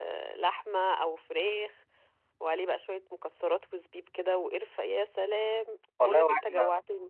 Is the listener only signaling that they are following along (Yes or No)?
No